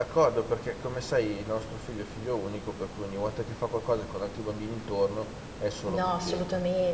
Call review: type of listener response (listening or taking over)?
taking over